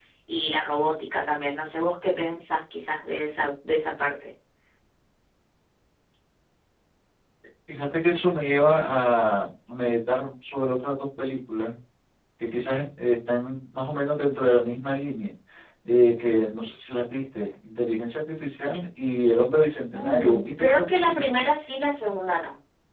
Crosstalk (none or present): present